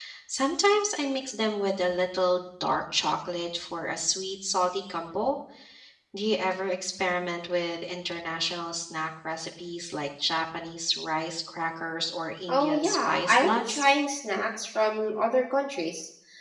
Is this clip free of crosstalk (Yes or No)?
No